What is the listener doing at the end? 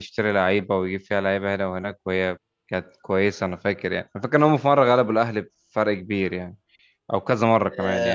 taking over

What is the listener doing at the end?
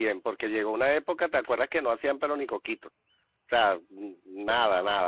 listening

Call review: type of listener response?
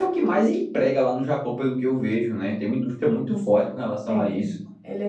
taking over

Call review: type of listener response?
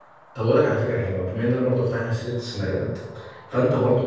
listening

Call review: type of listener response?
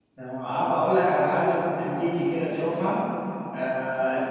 listening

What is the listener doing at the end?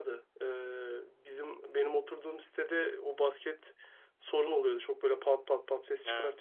listening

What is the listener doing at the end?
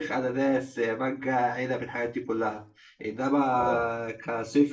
listening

